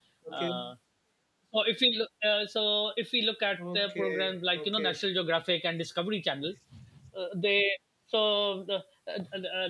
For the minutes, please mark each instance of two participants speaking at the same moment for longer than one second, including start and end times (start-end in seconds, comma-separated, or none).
3.6-5.0